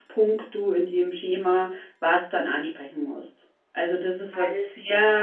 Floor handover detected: No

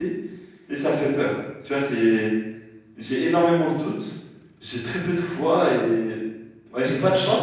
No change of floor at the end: No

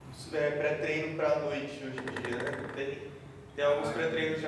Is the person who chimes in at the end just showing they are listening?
Yes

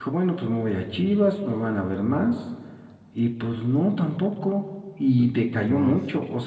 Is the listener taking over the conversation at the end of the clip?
No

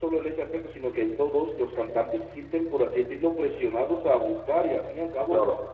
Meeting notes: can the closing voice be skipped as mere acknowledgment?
Yes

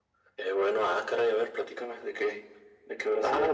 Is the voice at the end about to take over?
Yes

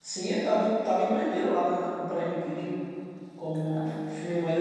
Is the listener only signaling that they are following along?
Yes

